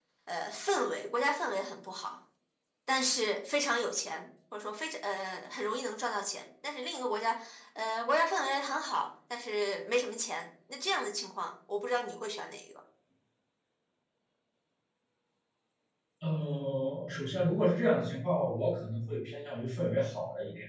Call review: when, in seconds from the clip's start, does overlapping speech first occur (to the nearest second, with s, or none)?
none